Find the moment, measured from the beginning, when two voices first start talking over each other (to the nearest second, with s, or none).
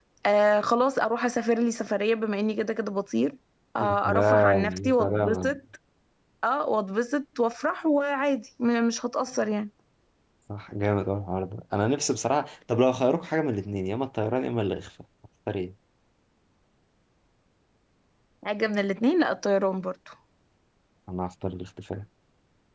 4 s